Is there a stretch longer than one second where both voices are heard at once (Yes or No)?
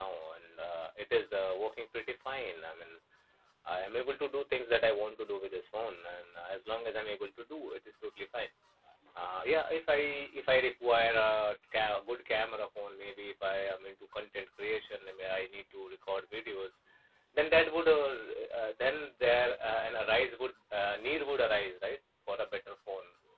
No